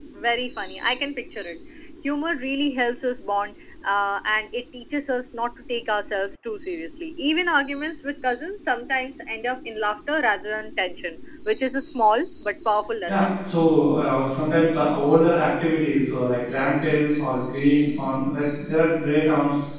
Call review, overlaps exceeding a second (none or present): none